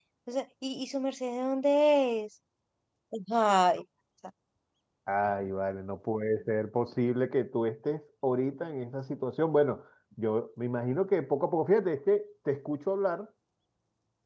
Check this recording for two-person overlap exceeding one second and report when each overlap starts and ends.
none

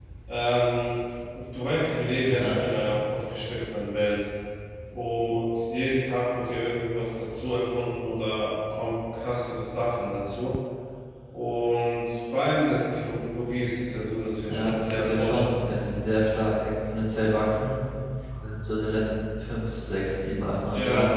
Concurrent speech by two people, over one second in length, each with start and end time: 14.5-16.0

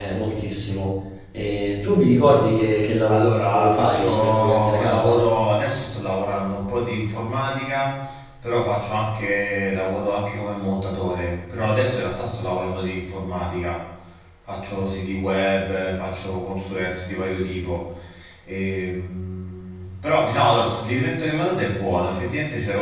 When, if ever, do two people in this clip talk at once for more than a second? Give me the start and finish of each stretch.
3.1-5.3

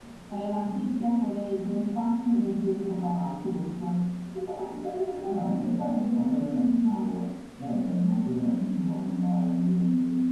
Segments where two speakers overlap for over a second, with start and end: 5.2-7.1

